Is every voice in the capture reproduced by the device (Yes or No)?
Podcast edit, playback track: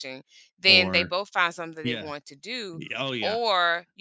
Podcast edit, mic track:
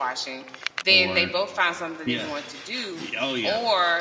Yes